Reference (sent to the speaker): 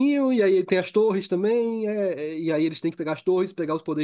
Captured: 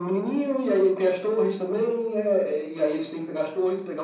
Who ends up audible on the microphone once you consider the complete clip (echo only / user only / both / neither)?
echo only